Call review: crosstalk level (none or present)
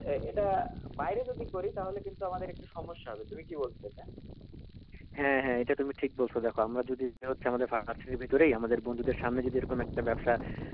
none